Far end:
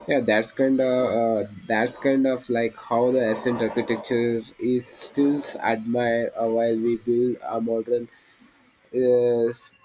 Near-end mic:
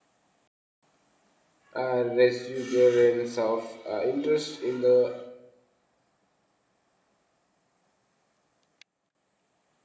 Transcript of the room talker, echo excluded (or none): a resurgence of uh, interest in the